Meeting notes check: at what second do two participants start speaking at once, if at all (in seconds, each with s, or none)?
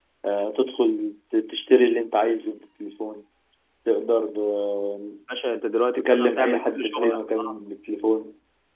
6.0 s